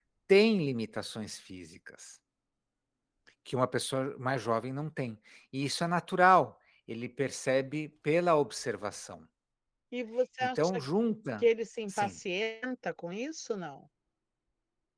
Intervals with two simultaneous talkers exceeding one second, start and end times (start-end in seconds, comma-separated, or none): none